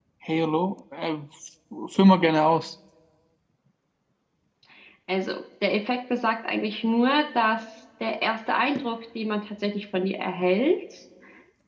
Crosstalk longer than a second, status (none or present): none